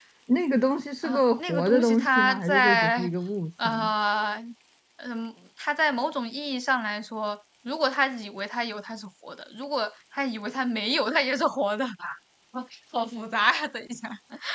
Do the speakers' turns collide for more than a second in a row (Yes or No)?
Yes